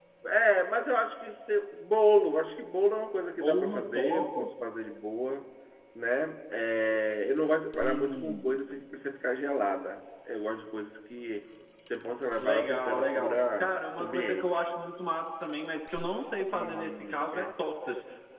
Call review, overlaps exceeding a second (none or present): present